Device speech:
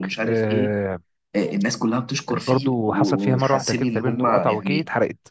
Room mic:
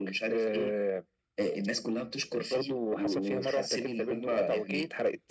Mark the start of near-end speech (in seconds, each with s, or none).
none